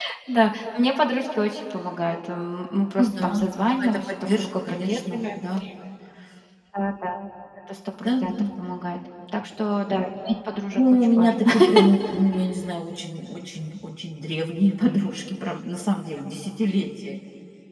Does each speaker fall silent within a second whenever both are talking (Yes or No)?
No